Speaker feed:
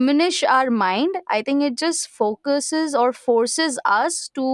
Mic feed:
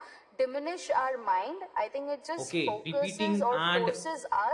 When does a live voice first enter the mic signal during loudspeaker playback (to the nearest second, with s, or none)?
2 s